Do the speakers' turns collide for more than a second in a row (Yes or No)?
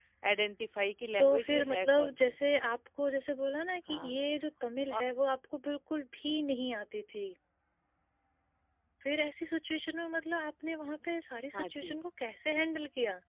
Yes